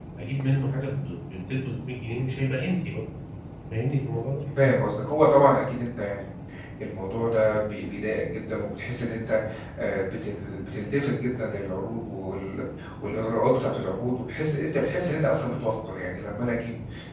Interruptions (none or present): none